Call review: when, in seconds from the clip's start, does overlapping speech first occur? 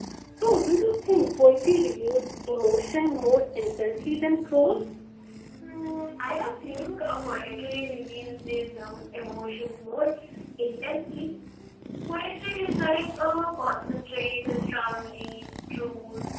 none

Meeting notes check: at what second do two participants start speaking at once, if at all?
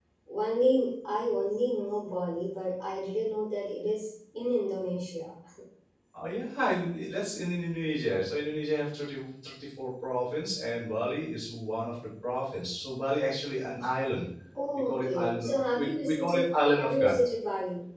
14.9 s

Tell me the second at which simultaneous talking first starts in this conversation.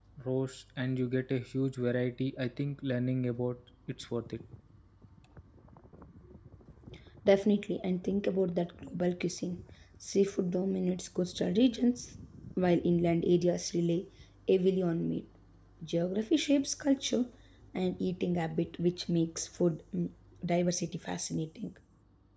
none

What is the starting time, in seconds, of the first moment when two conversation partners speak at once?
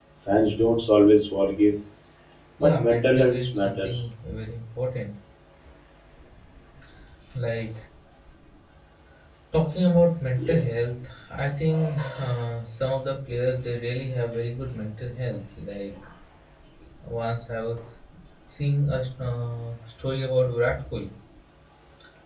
2.6 s

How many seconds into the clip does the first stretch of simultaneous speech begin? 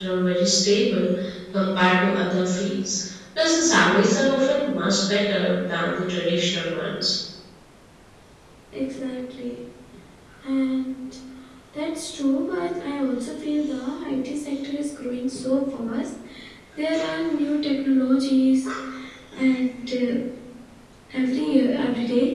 none

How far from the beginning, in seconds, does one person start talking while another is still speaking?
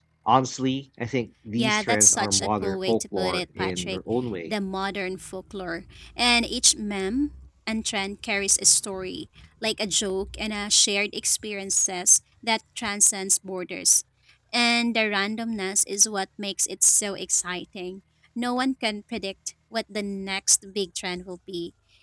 1.6 s

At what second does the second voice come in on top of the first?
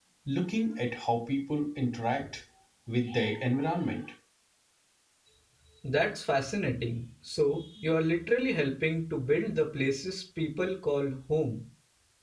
none

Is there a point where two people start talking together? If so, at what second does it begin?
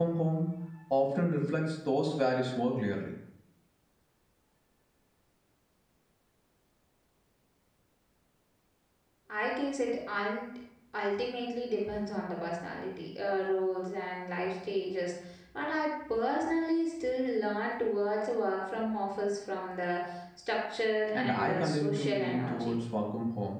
21.1 s

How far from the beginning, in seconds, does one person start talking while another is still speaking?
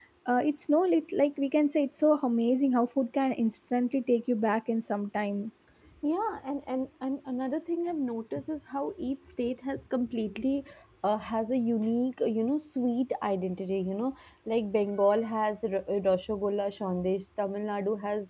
none

